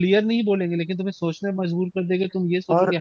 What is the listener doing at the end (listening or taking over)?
taking over